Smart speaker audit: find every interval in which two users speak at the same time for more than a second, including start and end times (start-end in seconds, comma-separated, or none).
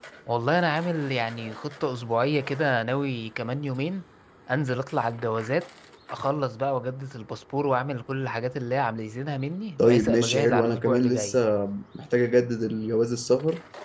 9.8-11.4